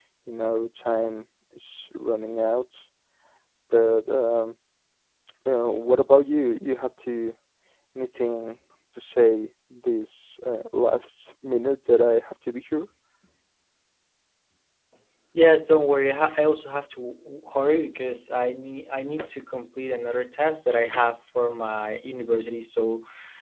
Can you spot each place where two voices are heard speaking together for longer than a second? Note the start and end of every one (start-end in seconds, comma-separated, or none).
none